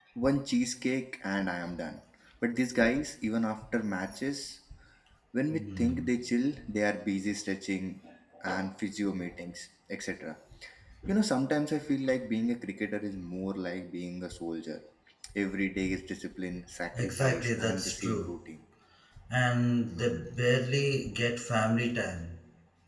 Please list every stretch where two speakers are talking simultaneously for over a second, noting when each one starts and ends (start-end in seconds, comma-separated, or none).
17.0-18.3